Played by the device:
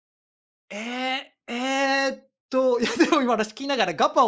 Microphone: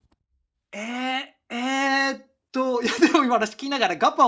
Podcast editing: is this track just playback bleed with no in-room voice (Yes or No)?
Yes